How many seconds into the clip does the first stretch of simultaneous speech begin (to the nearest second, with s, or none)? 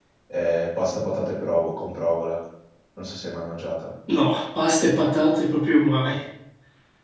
none